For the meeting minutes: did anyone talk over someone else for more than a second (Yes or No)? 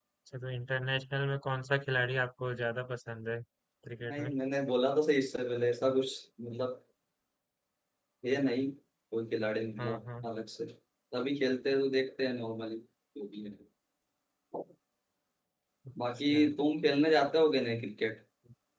No